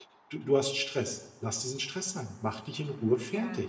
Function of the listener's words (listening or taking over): taking over